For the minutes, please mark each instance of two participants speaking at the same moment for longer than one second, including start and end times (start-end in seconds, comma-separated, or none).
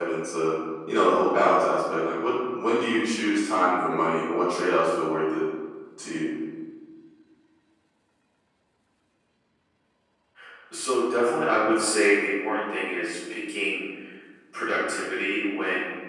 none